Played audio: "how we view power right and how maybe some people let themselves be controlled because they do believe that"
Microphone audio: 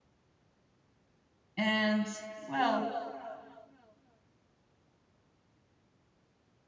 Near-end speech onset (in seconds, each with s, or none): 1.6 s